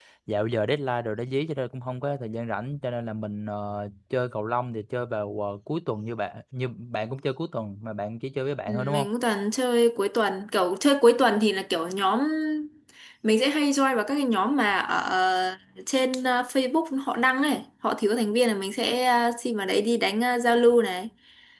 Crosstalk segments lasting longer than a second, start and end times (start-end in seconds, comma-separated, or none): none